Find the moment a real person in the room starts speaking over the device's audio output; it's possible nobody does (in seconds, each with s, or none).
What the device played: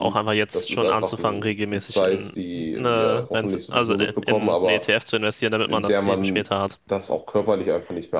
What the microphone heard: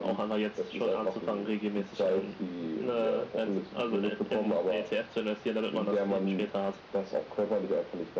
2.0 s